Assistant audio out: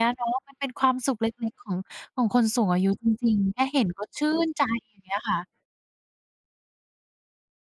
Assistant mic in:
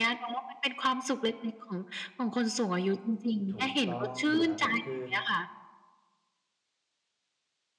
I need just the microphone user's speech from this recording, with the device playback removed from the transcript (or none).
ถูกต้องครับผม คือ